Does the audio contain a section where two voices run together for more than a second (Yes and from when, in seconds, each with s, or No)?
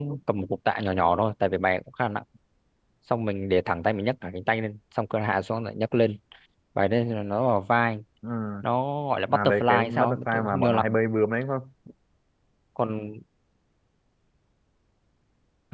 Yes, from 9.3 s